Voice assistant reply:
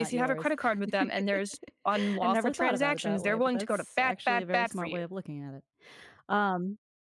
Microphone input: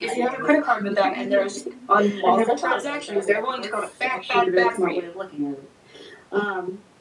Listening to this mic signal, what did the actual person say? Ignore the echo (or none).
Mm-hmm.